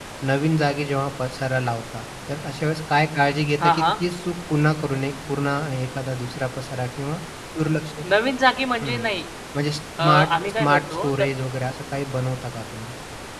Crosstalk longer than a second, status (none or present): present